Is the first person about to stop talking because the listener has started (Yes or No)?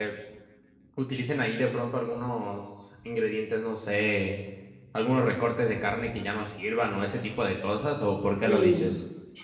Yes